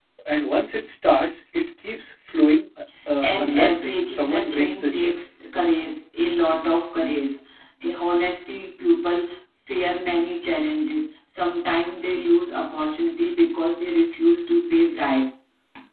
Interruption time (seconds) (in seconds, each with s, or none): 3.2 s